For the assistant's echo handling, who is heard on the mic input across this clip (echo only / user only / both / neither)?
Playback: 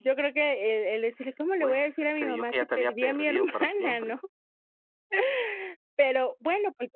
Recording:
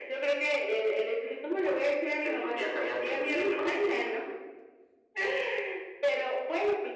echo only